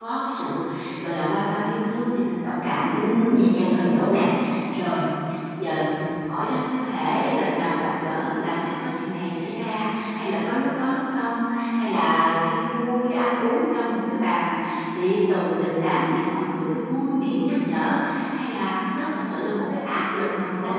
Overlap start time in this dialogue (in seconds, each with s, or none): 2.9 s